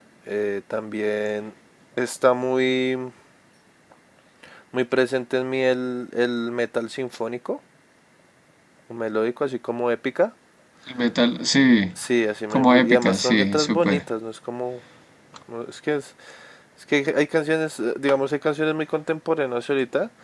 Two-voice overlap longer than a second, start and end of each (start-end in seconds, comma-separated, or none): 12.5-14.0